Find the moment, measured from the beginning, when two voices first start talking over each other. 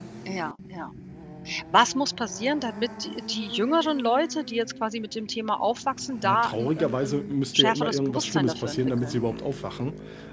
6 s

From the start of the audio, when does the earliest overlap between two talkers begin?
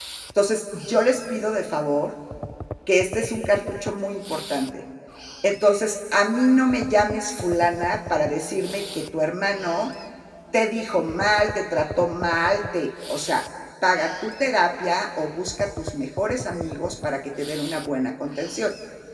none

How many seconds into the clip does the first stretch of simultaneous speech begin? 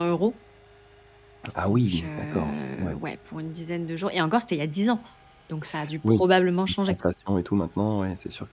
2 s

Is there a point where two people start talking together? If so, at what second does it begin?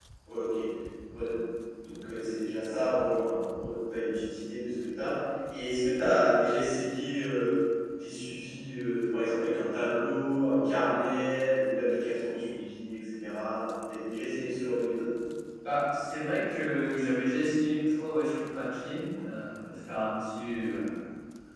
none

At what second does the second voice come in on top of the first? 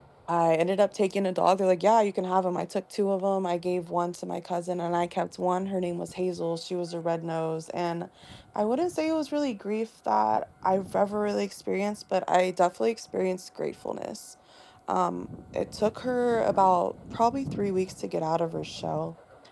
none

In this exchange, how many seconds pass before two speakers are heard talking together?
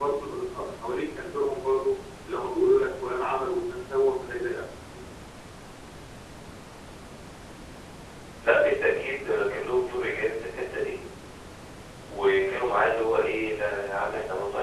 none

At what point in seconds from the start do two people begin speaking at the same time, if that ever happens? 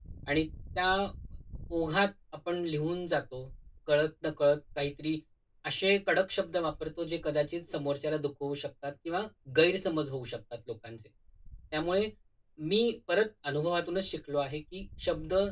none

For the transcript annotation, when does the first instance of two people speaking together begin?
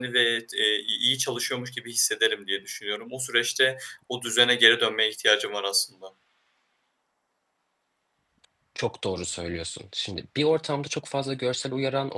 none

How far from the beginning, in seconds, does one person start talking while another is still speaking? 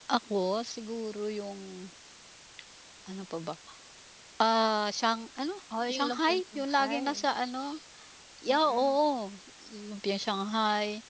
6 s

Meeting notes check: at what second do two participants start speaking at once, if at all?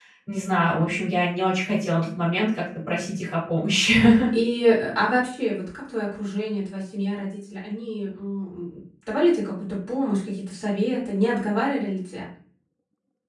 none

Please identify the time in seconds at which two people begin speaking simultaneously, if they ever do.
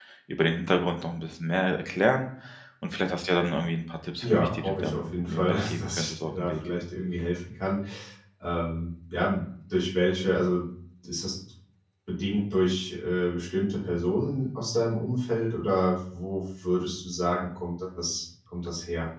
4 s

